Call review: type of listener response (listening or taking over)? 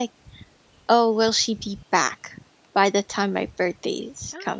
taking over